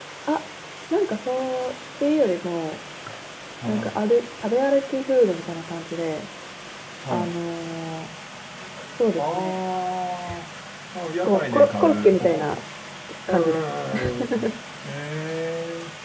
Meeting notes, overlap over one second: present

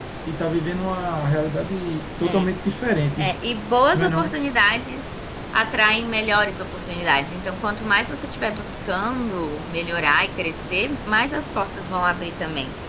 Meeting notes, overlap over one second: none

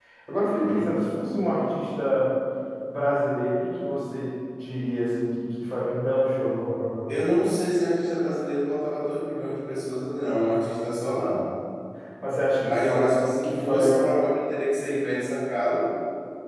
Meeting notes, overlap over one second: present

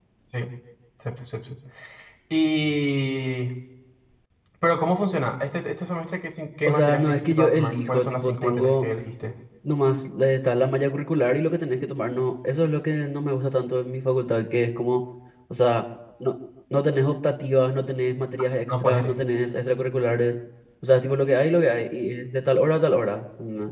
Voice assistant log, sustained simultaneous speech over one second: present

